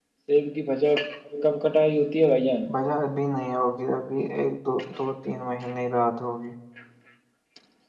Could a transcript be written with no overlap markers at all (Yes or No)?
Yes